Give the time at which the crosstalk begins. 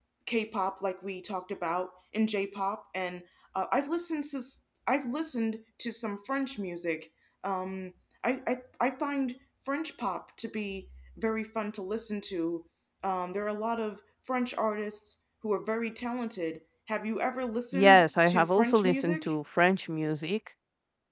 17.7 s

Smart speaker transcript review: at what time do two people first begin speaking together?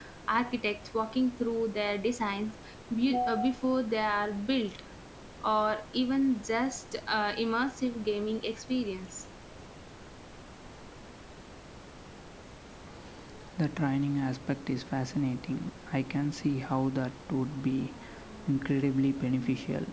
none

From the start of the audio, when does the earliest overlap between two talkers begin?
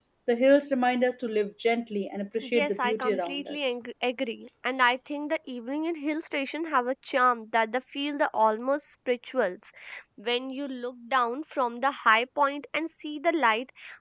2.4 s

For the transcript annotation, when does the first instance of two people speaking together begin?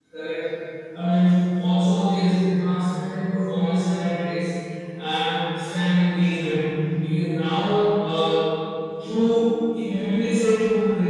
none

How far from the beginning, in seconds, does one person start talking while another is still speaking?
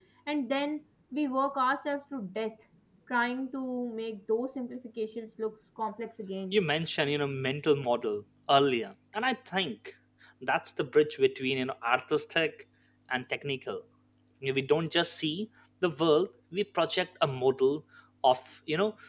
none

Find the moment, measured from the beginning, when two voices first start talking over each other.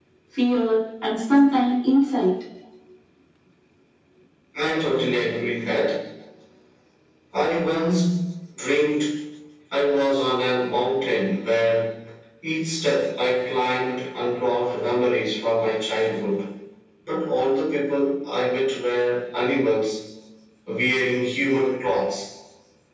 none

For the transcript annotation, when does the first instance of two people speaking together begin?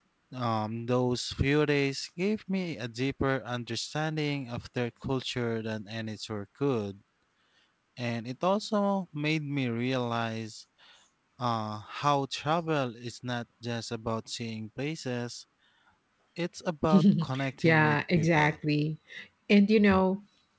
16.9 s

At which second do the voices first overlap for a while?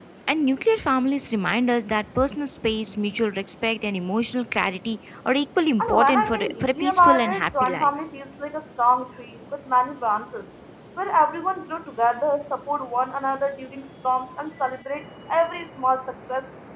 5.8 s

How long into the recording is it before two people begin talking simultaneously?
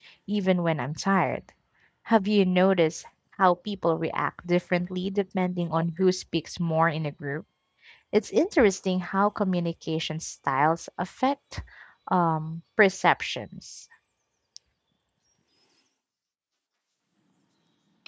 none

